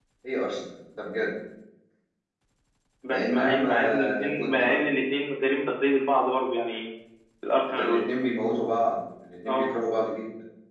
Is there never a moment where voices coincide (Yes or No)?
No